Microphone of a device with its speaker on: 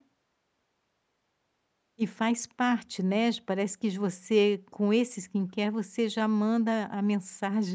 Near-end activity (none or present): present